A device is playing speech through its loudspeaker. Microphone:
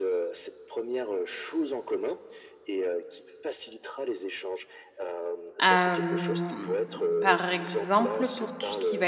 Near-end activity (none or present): present